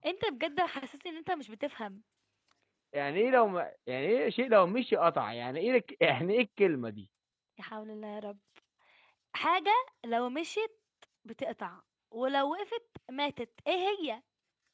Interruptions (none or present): none